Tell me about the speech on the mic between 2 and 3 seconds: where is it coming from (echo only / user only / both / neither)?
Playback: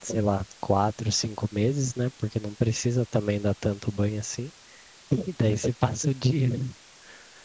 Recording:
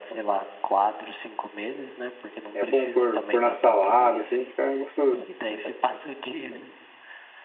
both